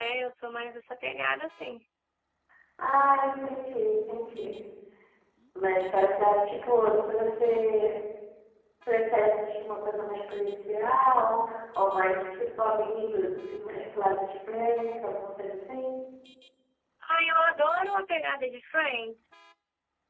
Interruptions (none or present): none